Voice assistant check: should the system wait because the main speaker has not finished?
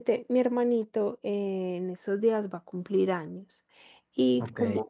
Yes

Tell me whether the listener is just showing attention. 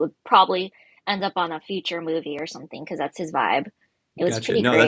No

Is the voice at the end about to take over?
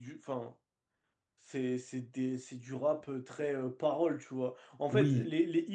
No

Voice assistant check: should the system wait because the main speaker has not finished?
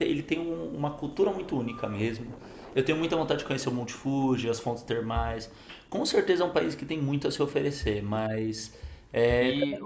No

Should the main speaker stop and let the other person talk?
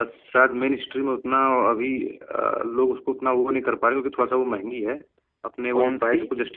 No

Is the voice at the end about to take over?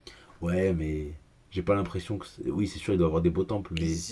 Yes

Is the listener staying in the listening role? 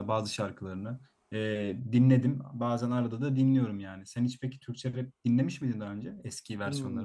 No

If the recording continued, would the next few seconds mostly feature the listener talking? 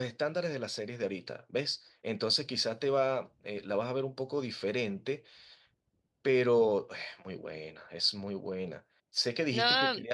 No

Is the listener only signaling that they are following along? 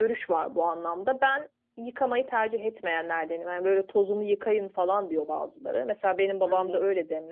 Yes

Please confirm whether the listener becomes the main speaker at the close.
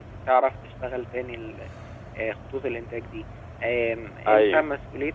No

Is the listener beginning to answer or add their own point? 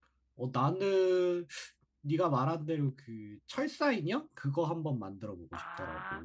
Yes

